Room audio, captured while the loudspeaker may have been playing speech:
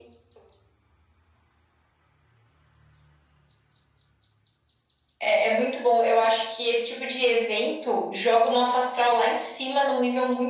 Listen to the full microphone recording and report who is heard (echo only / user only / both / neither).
echo only